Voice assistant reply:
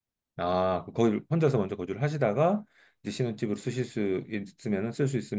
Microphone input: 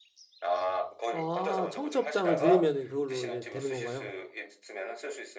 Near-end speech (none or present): present